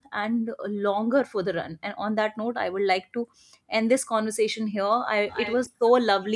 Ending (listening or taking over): listening